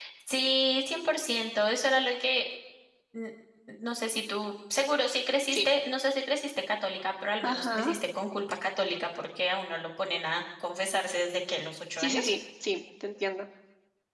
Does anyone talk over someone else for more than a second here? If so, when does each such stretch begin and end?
none

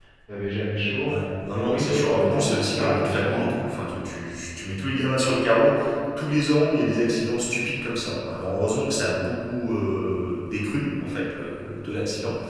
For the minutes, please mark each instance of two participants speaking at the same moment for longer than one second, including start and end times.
1.5-3.5

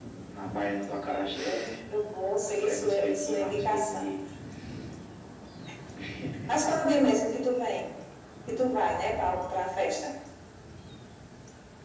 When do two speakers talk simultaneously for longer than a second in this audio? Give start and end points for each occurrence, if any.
2.6-4.1

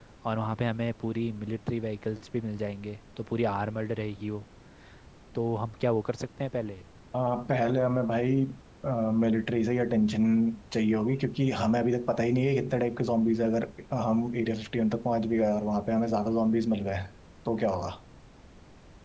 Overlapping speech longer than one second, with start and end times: none

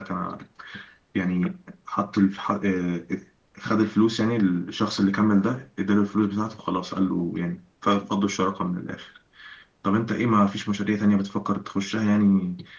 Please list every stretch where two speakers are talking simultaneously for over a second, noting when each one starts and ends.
none

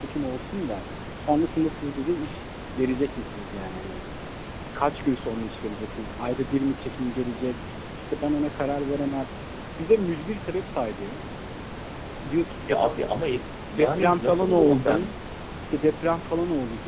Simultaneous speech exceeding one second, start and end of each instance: 13.8-15.1

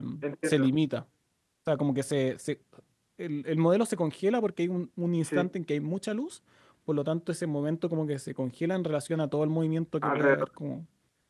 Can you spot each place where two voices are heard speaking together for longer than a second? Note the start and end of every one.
none

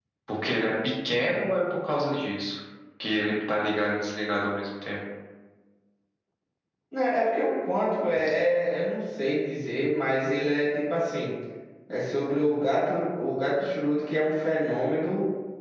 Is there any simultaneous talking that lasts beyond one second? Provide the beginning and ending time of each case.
none

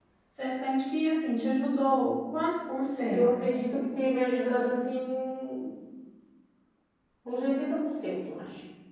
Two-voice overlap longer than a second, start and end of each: none

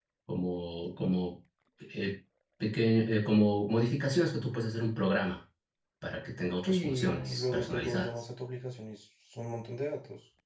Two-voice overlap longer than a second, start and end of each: 6.7-8.1

